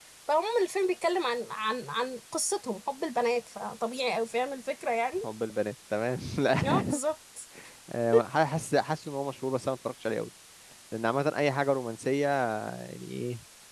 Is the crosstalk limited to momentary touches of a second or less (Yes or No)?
Yes